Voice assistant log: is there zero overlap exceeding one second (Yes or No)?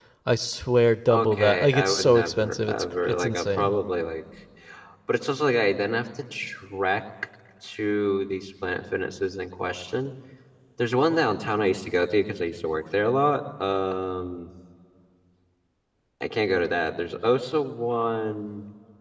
No